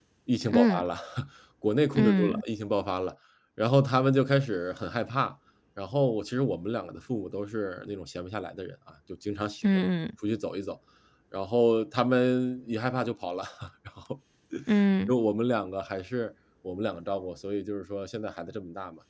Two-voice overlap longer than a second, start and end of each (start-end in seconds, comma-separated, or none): none